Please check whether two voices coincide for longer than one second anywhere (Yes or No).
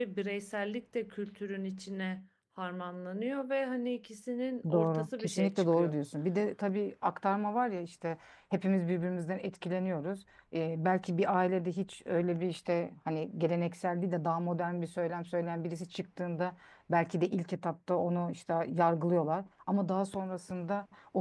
Yes